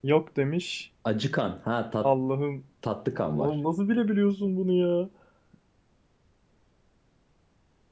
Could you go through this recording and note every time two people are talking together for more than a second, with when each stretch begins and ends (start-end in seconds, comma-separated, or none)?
none